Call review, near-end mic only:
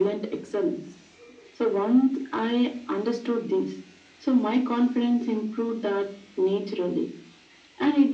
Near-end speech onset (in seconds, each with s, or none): none